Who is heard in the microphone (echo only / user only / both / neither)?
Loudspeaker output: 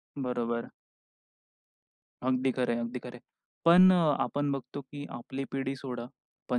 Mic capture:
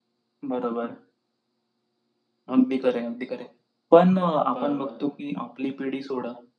both